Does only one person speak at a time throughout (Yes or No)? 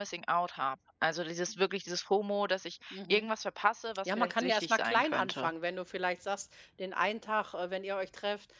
No